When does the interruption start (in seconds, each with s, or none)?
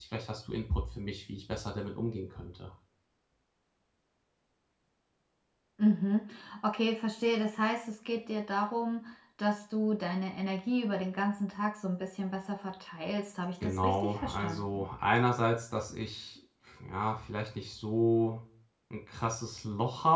13.6 s